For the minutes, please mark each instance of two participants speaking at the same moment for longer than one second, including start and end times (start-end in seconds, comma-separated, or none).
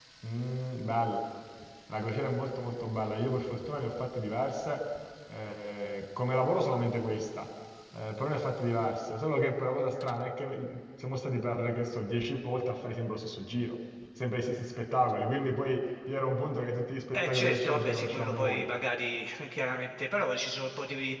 17.1-18.7